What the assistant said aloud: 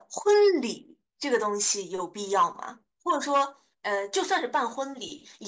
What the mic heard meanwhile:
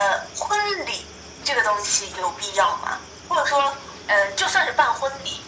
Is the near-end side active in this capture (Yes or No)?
No